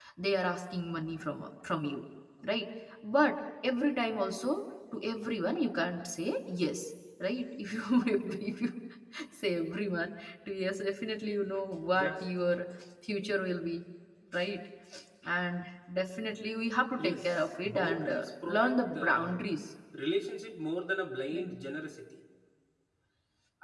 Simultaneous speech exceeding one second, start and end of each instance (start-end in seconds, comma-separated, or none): 17.0-19.4